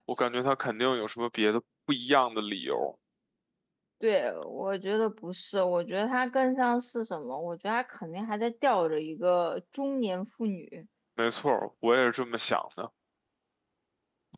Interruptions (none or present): none